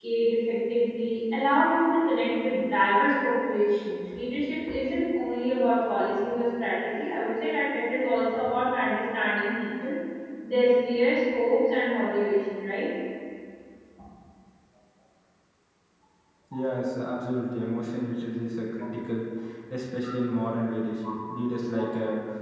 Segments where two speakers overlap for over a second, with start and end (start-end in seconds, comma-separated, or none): none